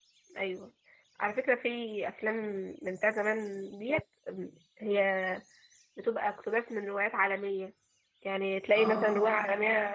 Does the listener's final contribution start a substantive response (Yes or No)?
No